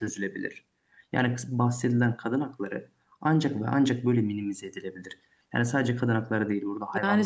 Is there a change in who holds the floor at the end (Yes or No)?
Yes